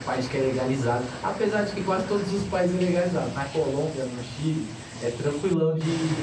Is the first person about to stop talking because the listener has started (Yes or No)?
No